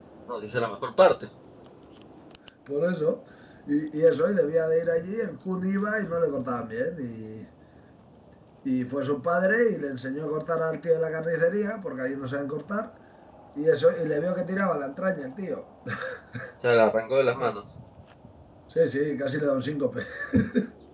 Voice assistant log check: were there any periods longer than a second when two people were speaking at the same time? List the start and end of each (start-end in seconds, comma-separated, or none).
none